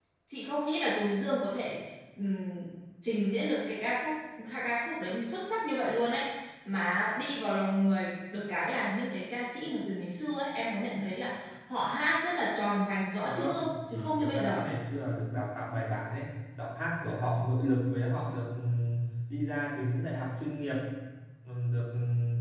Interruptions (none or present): present